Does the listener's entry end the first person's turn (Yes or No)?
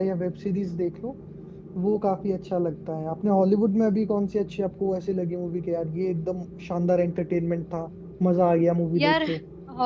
Yes